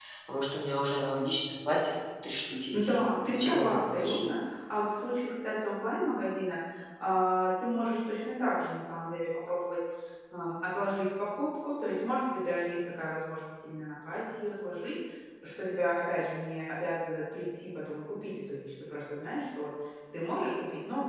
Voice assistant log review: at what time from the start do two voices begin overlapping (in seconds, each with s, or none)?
2.7 s